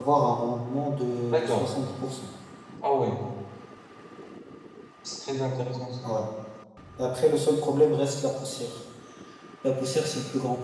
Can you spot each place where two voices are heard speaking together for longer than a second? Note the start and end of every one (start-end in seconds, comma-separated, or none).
none